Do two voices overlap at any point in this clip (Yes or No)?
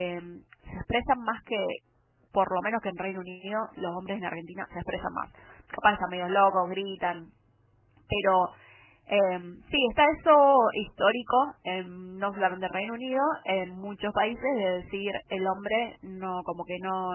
No